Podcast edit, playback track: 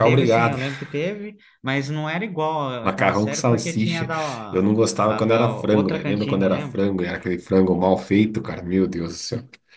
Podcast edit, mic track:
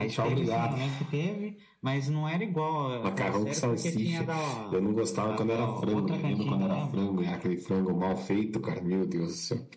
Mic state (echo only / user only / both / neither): echo only